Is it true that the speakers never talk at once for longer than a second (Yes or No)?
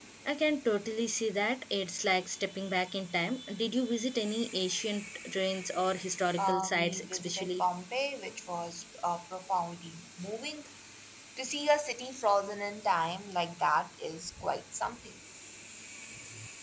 No